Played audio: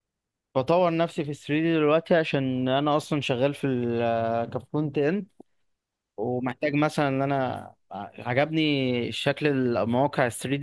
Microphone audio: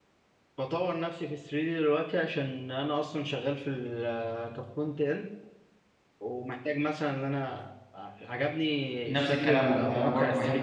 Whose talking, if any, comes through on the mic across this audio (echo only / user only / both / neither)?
both